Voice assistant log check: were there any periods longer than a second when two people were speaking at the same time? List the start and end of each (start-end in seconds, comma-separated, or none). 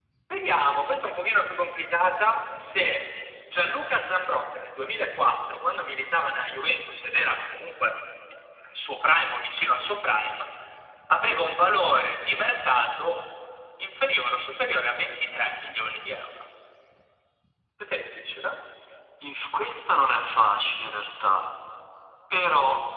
none